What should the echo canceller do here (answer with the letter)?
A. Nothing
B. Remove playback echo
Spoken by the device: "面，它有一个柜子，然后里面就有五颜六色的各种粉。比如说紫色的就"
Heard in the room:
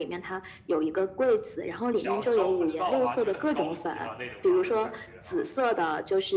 B